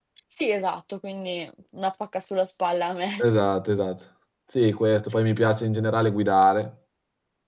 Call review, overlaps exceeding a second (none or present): none